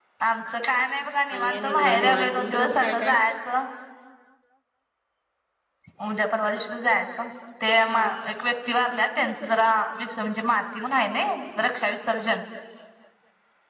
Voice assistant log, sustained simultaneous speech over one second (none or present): present